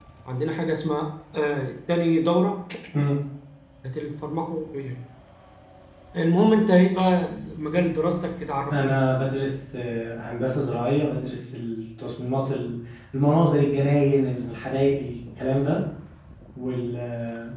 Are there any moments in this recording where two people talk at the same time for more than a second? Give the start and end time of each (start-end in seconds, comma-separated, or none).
none